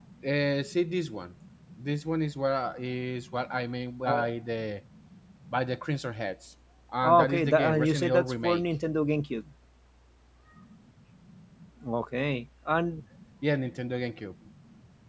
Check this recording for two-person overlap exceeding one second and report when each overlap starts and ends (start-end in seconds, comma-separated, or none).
7.0-8.6